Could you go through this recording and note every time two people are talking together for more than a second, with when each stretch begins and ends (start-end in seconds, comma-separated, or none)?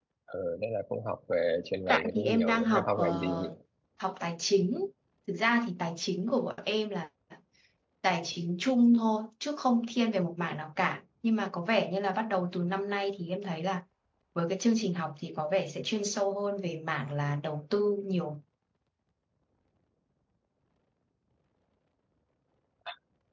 1.9-3.5